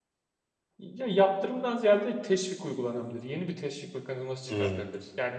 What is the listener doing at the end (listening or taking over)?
listening